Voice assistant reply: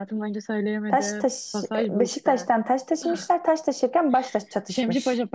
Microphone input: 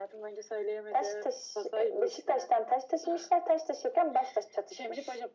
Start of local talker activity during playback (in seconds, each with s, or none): none